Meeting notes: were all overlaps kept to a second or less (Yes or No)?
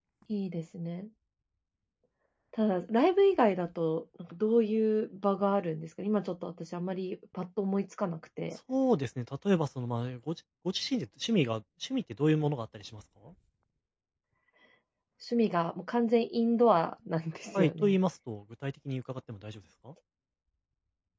Yes